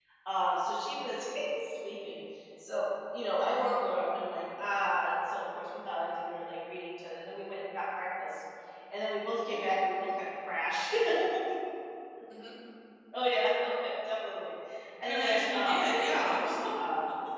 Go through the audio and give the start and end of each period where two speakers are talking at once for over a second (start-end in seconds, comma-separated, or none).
15.1-16.4